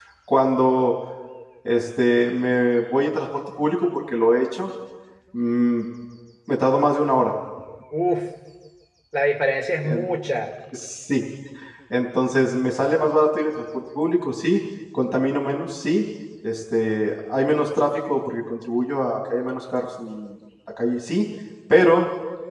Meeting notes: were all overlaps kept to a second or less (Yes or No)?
Yes